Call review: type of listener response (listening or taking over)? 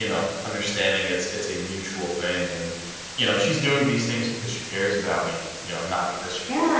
taking over